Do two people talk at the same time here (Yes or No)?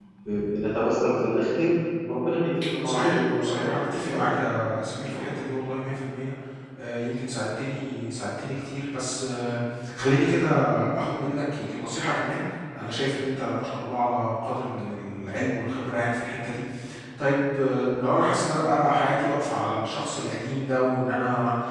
Yes